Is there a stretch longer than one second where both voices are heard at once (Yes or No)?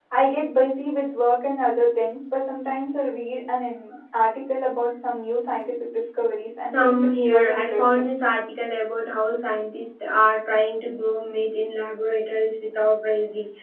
Yes